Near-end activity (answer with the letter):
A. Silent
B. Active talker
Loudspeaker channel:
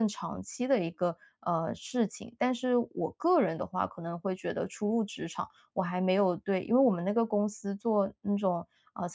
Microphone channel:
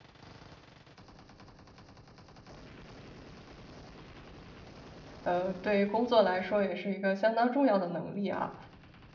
B